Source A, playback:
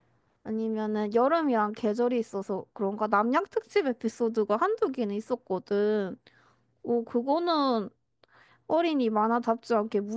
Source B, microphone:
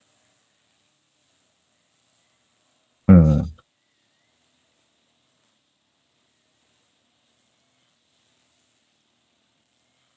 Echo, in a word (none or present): none